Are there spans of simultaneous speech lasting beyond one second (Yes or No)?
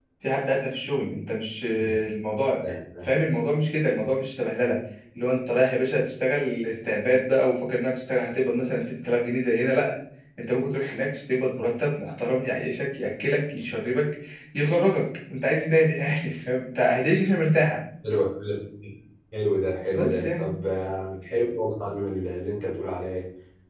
No